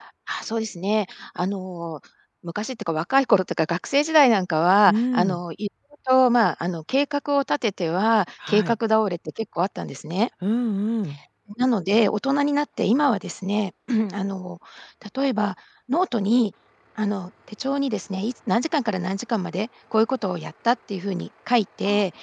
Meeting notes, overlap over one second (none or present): none